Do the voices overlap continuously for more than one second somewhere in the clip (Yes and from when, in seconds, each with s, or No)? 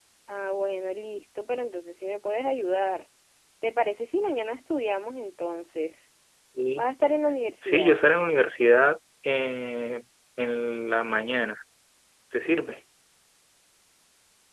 No